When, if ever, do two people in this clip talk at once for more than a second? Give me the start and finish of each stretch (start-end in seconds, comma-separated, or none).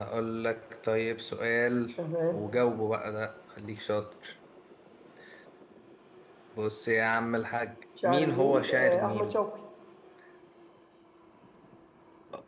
8.0-9.4